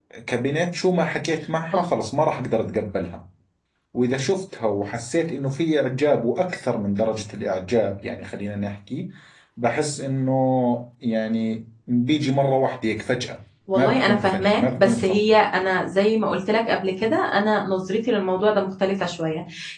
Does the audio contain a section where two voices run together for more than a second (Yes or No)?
Yes